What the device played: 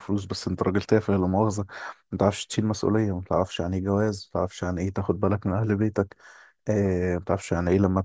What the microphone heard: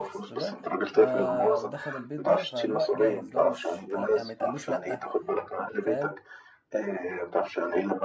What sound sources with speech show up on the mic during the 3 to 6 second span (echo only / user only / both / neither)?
both